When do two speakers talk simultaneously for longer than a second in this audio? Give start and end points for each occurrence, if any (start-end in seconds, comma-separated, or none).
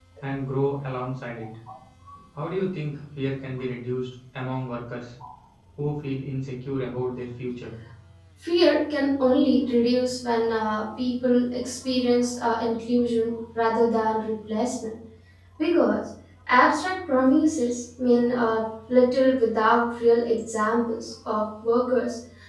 none